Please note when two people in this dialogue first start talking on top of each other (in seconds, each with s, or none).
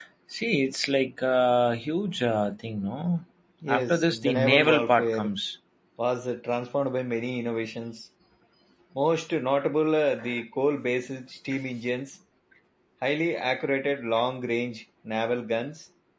3.7 s